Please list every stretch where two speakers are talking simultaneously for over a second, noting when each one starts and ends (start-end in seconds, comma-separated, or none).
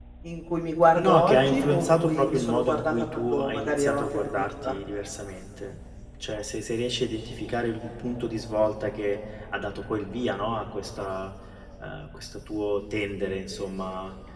1.0-4.7